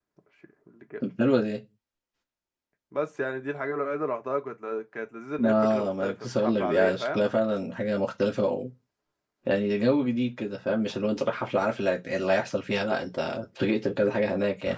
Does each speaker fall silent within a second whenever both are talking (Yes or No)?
No